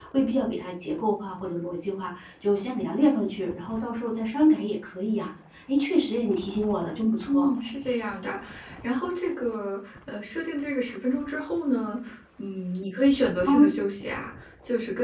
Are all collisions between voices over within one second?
Yes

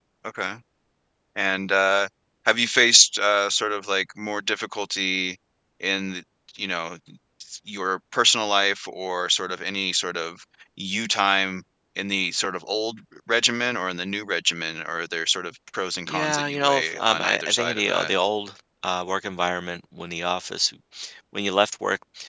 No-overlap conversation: No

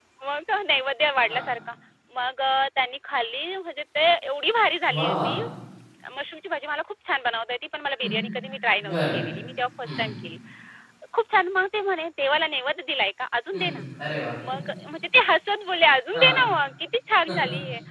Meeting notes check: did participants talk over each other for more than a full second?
No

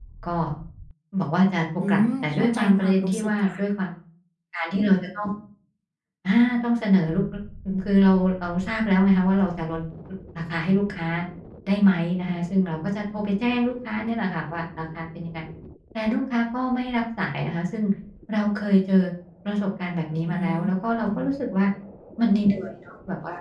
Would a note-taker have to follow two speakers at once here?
Yes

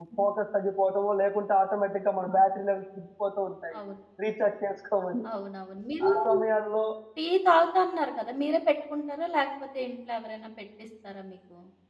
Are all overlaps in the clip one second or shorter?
Yes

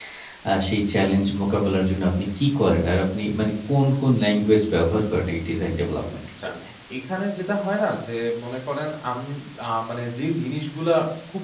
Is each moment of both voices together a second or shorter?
Yes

